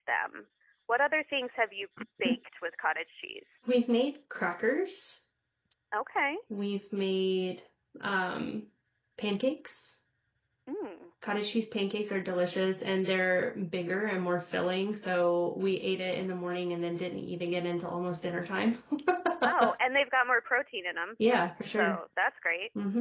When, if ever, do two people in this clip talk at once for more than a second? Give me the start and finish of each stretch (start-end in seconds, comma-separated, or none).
none